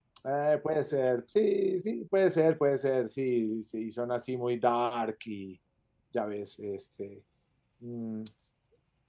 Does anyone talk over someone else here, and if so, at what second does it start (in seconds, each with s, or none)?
none